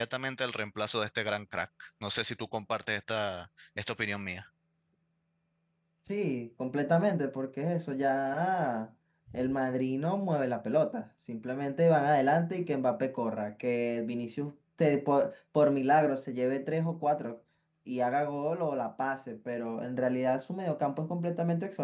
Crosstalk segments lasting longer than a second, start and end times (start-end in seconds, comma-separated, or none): none